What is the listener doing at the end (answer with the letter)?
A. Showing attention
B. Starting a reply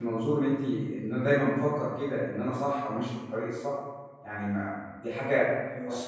A